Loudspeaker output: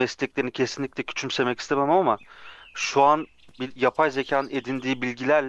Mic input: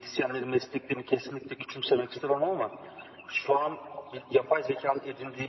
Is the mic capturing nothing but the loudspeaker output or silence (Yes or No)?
Yes